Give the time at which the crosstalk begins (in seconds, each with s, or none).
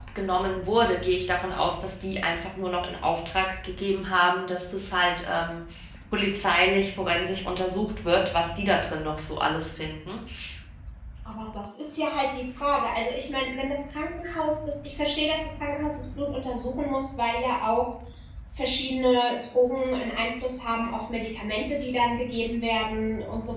none